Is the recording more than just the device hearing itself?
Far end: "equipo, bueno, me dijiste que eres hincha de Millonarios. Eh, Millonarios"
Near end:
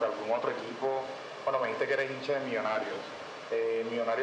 No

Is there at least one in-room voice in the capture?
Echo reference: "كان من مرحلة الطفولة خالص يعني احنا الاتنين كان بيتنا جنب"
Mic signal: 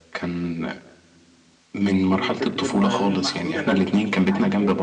Yes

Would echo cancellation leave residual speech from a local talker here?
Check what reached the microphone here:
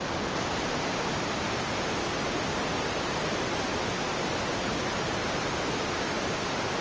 No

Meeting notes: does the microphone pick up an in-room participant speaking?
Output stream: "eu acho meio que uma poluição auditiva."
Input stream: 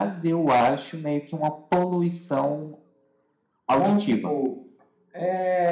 Yes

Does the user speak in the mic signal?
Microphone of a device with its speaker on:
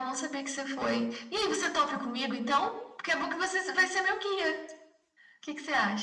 No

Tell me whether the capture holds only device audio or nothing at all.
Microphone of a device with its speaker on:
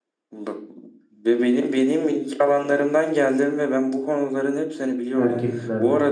No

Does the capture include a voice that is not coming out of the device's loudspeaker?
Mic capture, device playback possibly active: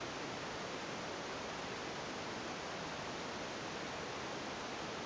No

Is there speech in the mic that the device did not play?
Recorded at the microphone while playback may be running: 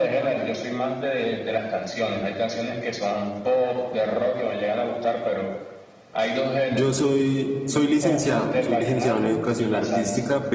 Yes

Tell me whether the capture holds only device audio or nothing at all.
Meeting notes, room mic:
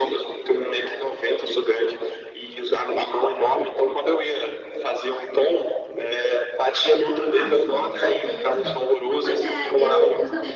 No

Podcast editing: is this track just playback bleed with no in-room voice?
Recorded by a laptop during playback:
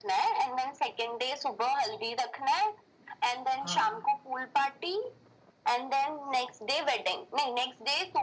No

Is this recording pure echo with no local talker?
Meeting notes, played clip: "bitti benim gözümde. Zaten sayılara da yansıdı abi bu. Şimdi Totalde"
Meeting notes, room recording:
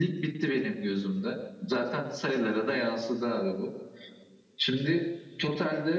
Yes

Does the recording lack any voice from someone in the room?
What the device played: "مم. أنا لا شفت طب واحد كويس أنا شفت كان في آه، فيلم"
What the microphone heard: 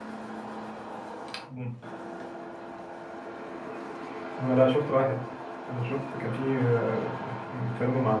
Yes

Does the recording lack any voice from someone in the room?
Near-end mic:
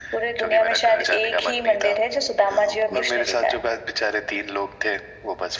No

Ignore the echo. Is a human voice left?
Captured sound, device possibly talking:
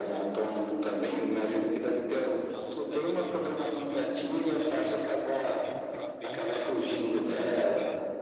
Yes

